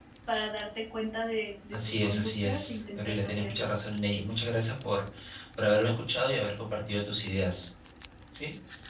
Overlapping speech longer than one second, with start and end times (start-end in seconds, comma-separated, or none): 1.7-3.8